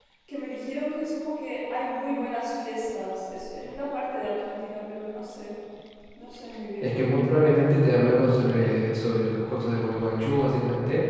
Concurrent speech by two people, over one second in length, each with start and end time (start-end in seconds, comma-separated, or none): none